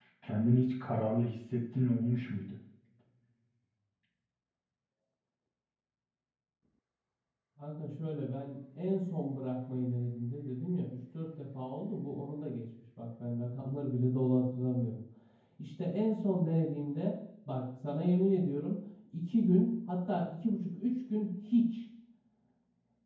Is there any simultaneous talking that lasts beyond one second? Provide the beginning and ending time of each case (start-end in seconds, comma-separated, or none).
none